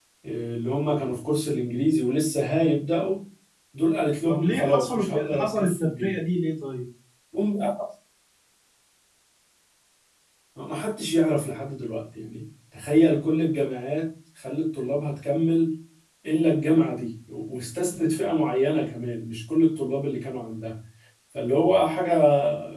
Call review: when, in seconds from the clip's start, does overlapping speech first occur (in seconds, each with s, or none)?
4.3 s